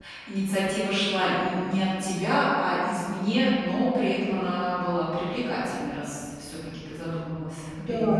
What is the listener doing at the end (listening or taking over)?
taking over